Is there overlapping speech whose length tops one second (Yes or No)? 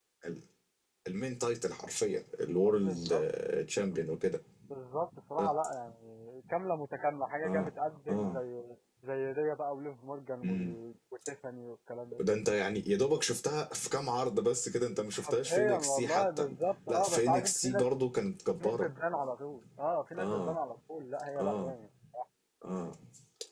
Yes